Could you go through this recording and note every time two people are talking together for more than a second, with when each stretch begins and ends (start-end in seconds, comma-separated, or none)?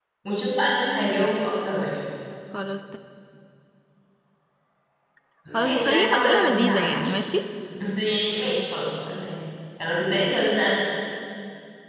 5.5-7.0